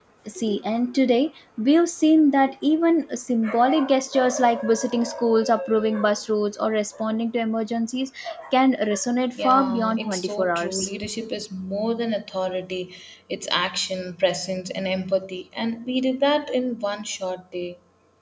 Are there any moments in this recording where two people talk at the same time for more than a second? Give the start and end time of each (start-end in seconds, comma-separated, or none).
9.3-10.9